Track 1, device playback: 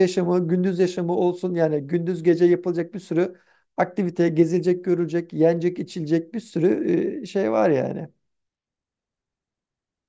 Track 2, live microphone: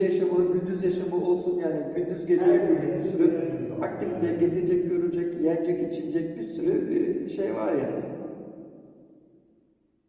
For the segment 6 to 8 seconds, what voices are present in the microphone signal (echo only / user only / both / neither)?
echo only